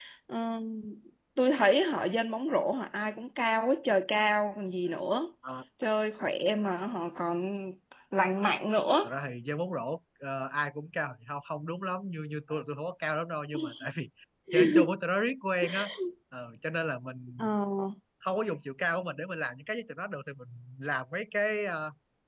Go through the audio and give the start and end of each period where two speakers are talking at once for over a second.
none

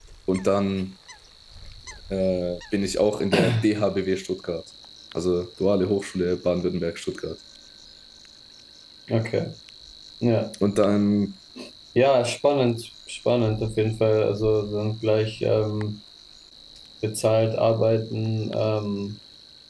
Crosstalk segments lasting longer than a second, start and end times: none

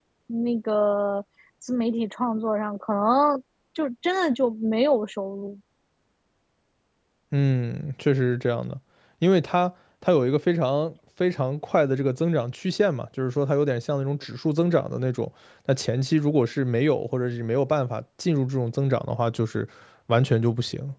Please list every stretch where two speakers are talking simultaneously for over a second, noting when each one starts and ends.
none

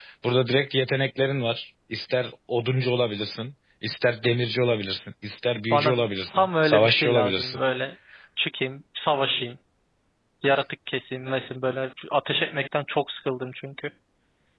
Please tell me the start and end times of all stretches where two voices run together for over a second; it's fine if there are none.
6.3-7.6

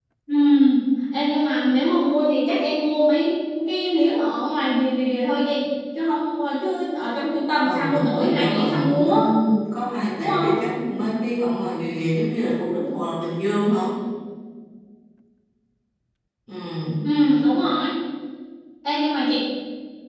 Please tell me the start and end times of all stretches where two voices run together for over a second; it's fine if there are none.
7.6-9.1

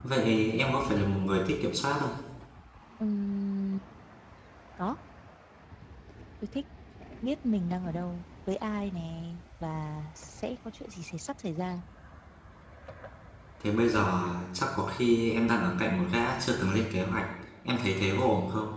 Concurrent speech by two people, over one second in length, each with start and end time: none

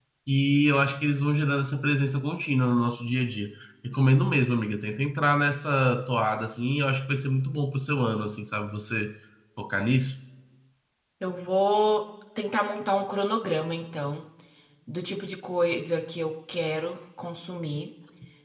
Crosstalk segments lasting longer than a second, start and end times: none

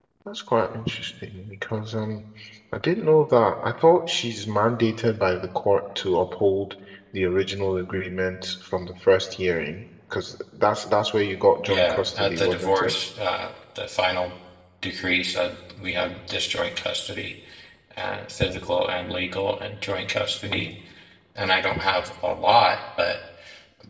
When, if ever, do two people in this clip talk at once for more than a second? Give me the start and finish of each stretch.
11.7-12.9

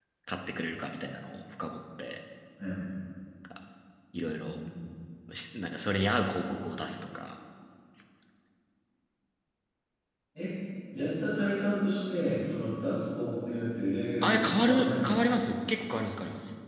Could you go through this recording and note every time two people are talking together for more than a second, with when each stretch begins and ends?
14.2-15.4

